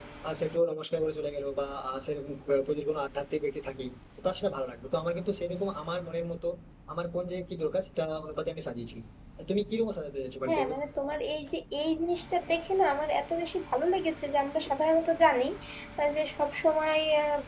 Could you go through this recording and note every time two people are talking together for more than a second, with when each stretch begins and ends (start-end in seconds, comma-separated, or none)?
none